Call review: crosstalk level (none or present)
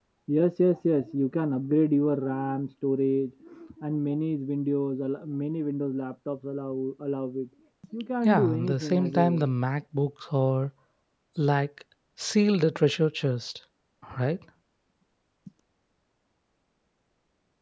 present